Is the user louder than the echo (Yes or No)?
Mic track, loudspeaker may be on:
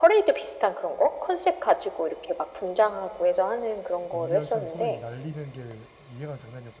No